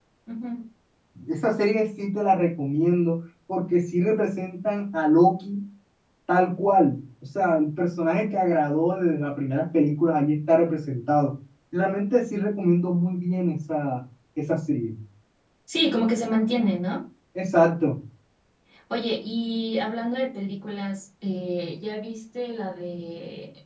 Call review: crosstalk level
none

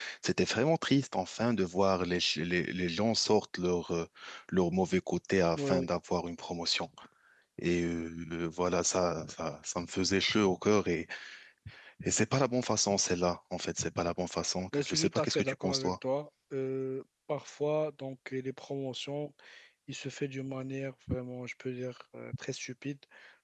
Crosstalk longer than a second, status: present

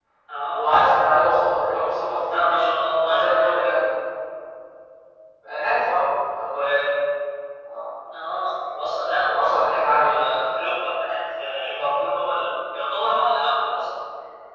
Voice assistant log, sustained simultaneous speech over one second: present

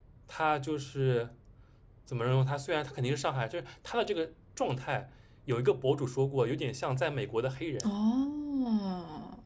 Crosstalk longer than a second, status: none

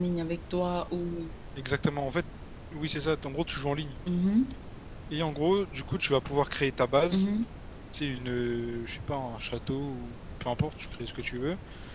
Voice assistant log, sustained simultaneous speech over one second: none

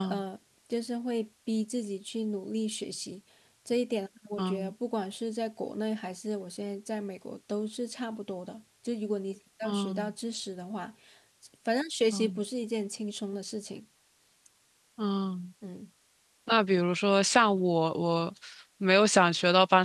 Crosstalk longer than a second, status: none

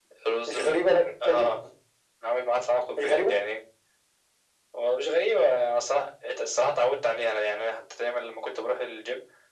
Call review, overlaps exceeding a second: none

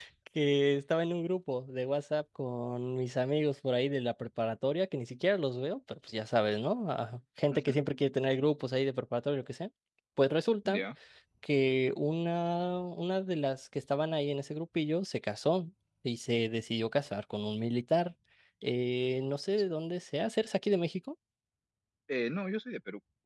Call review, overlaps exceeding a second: none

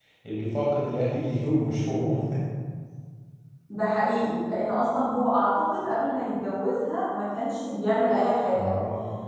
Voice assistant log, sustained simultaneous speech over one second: none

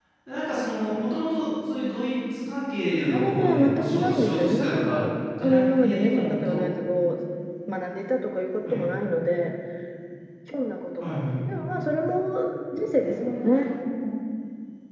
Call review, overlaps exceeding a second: present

